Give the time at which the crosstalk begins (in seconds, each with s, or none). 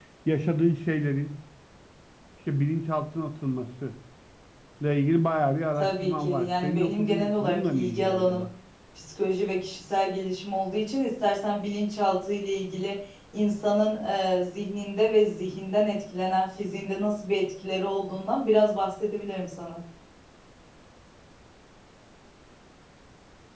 5.8 s